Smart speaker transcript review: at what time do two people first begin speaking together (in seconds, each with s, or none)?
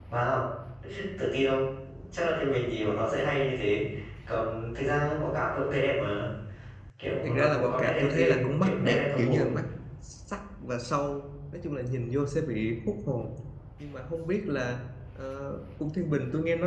7.2 s